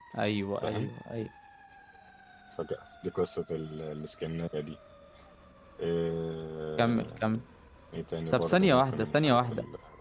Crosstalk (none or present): present